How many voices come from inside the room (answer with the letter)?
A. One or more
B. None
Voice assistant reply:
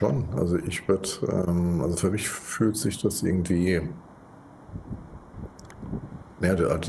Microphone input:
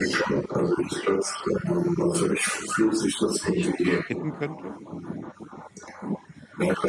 A